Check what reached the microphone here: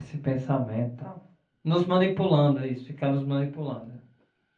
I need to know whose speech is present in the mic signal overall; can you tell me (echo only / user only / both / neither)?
user only